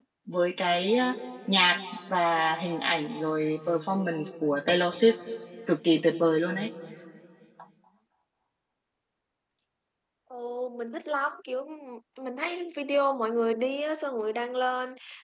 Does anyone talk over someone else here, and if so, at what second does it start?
none

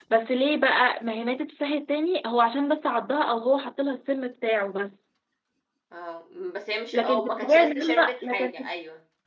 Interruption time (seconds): 6.9 s

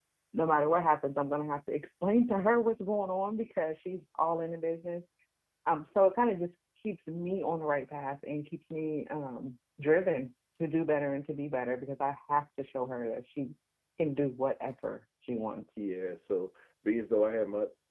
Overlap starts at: none

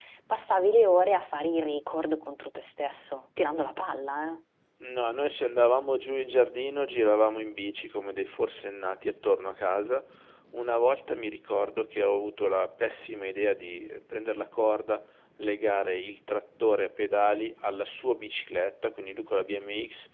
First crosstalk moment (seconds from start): none

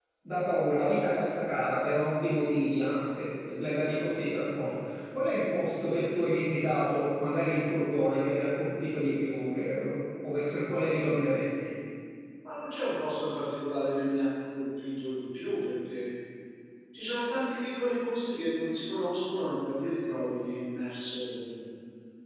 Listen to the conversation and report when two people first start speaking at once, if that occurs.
none

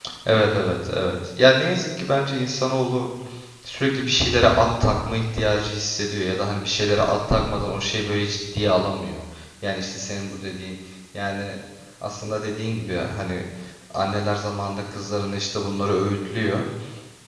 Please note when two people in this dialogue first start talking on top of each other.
none

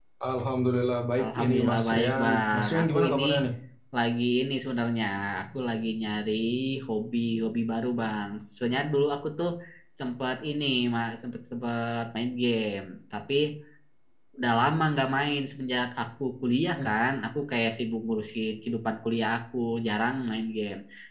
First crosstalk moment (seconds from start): 1.2 s

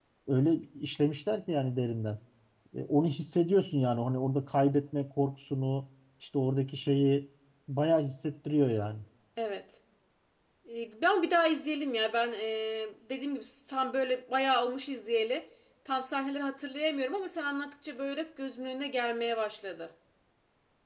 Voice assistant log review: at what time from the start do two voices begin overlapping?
none

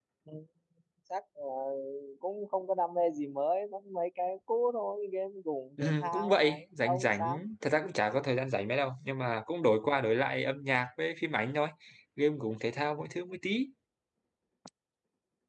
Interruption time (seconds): 5.8 s

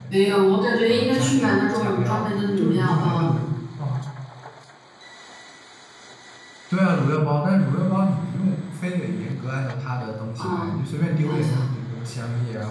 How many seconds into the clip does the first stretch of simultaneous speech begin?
0.9 s

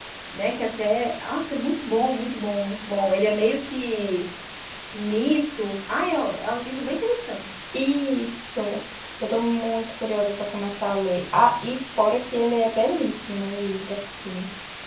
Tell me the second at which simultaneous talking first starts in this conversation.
none

